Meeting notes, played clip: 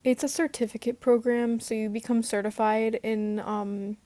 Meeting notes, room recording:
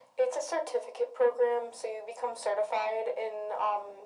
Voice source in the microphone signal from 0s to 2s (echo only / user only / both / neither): echo only